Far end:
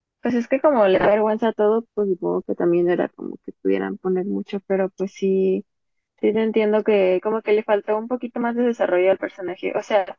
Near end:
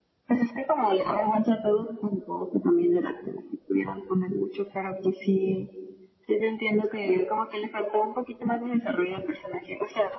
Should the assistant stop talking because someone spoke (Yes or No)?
No